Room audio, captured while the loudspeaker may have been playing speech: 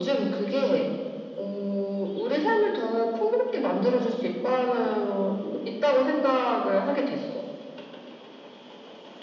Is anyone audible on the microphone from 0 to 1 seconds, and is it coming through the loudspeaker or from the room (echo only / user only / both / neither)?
echo only